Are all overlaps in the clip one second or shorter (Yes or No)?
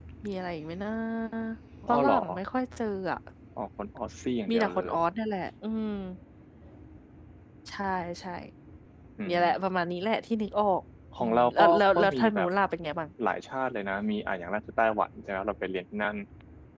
No